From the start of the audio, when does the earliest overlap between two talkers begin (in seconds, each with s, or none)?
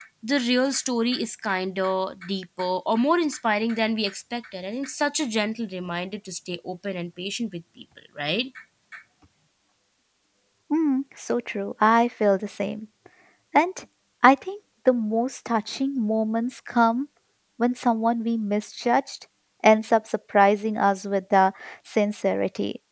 none